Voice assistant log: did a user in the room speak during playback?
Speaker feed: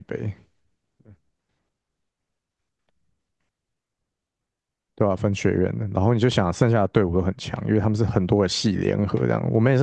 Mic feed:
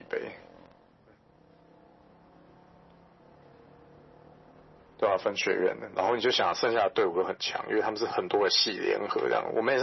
No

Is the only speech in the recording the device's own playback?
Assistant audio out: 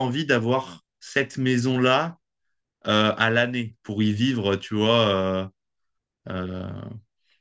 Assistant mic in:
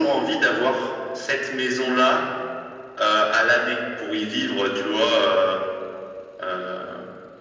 Yes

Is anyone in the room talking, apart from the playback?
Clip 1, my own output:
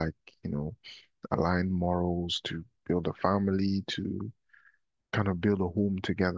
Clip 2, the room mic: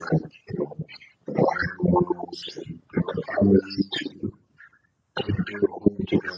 No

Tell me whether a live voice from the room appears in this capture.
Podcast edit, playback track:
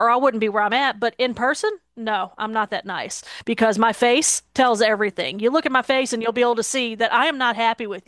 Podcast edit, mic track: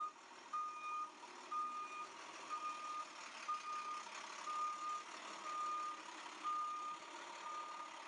No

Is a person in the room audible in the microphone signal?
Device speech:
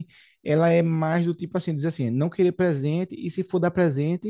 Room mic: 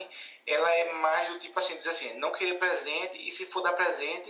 No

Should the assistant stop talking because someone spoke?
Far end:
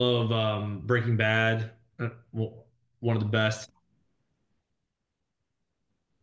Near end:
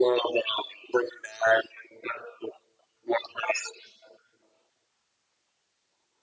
No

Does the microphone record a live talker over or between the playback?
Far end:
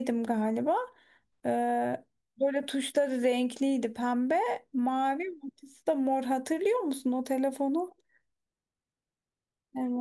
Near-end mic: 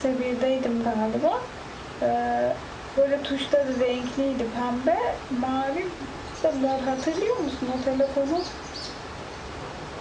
No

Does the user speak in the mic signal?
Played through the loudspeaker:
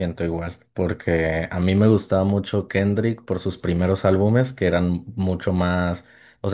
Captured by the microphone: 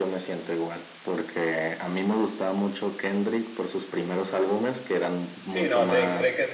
Yes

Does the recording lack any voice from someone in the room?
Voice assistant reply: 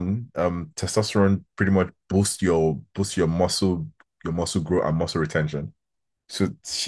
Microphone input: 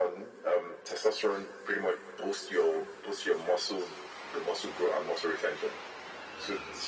Yes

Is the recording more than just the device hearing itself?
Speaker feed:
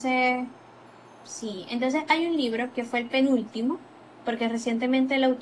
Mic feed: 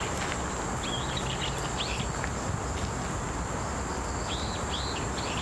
No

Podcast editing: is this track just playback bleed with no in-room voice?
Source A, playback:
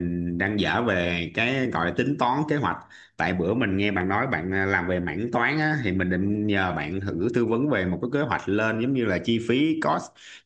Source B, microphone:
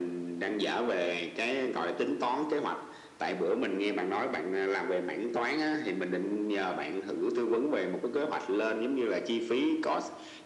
Yes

